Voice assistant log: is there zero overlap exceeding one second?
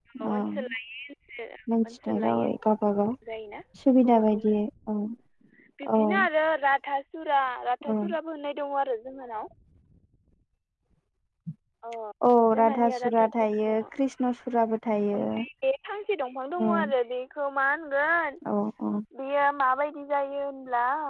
No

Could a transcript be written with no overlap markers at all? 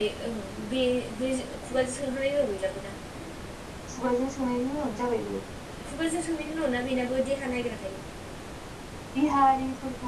Yes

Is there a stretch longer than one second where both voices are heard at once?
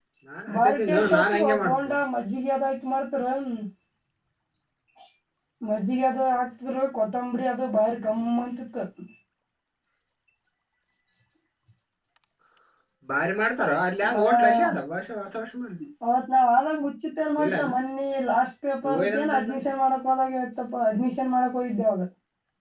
Yes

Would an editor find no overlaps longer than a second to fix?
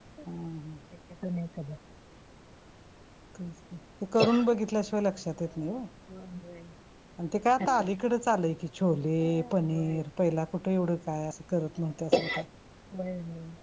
Yes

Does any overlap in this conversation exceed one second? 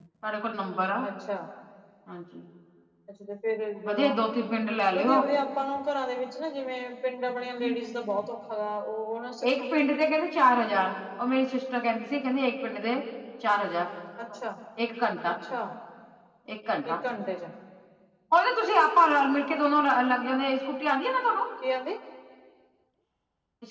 No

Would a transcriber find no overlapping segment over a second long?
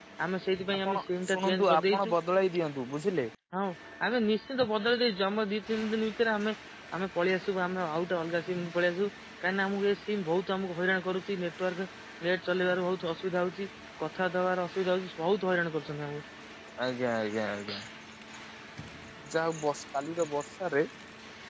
No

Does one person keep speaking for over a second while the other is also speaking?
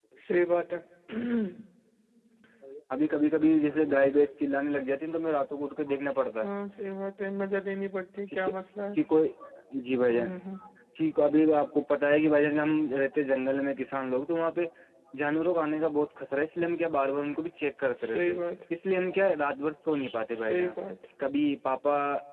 No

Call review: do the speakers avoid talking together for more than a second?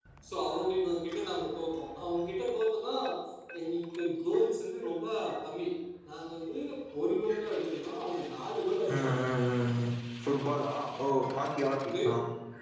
Yes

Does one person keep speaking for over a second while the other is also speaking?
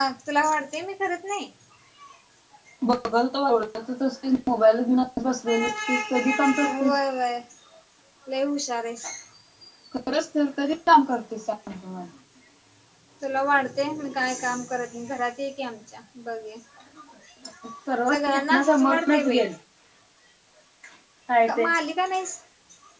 Yes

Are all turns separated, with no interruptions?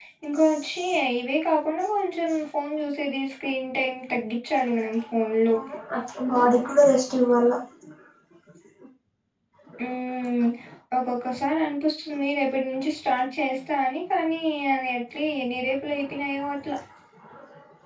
Yes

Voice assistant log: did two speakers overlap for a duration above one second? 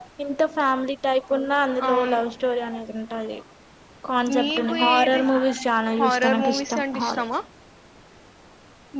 Yes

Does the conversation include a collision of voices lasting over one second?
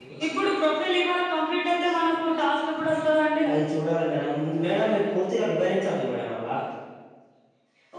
No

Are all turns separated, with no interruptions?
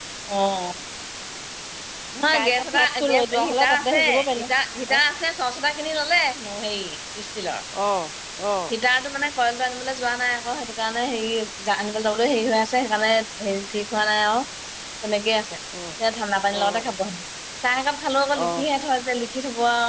No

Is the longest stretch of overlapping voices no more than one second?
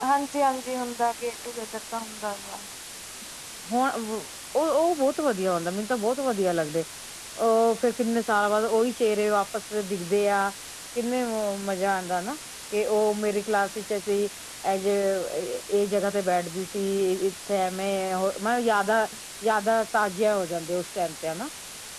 Yes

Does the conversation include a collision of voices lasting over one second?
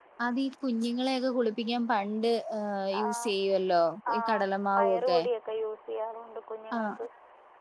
No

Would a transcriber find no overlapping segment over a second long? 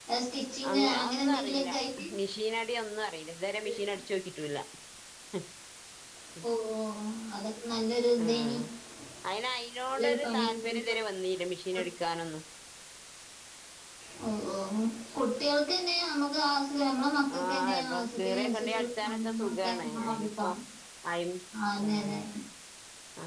No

